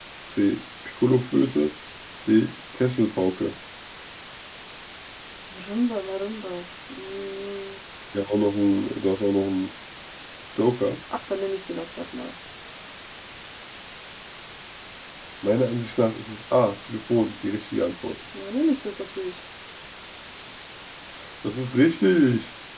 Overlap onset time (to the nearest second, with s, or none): none